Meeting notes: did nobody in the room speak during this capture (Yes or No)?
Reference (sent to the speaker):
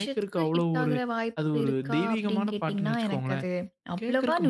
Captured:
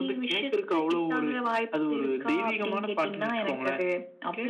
Yes